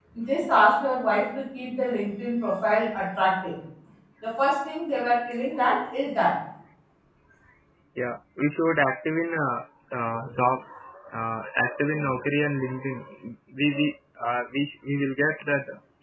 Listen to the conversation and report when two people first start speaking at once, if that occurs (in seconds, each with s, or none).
none